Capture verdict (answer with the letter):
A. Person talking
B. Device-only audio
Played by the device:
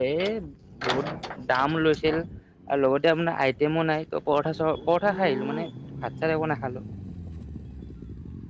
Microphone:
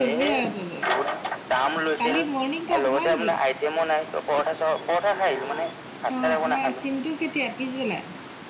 A